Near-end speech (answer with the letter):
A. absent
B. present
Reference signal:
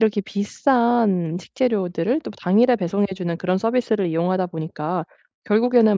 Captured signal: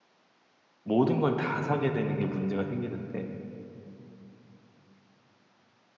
B